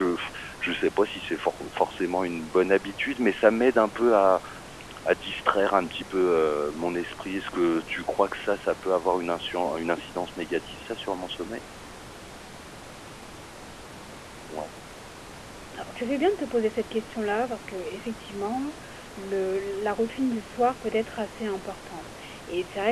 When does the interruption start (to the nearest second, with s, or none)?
none